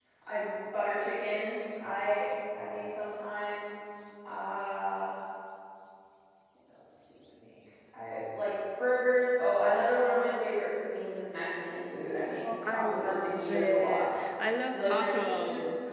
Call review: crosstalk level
present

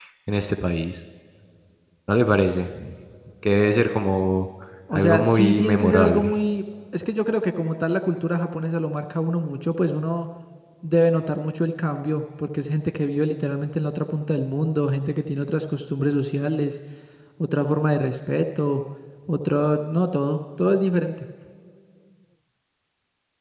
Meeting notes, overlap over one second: present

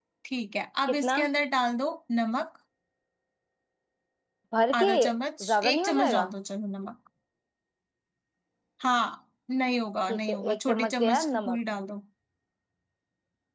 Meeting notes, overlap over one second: present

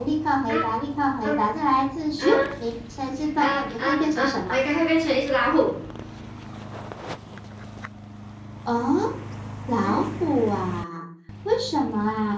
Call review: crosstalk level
present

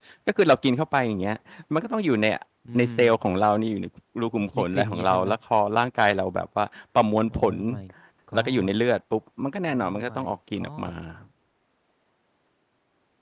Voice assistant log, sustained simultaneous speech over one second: present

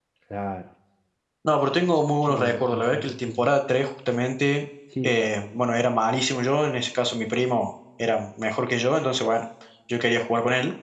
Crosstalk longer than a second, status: present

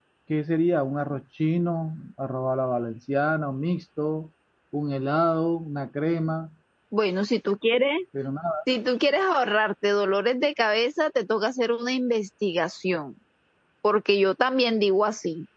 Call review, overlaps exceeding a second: none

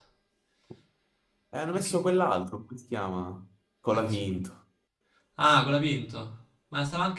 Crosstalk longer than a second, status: none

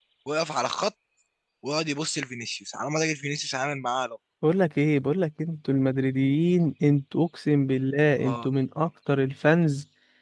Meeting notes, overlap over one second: none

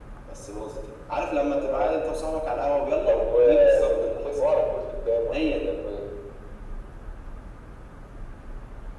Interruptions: present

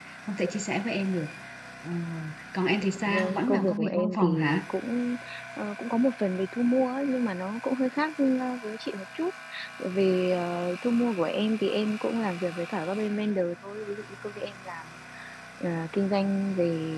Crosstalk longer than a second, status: present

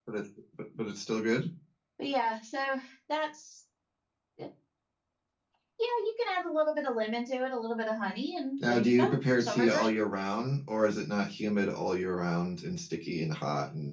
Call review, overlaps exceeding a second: present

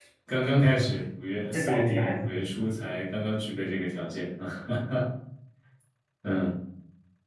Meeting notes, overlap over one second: present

